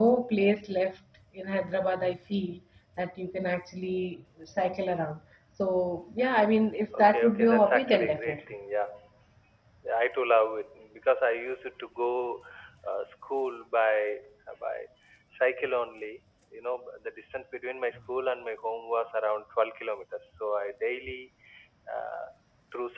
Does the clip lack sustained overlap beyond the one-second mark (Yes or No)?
No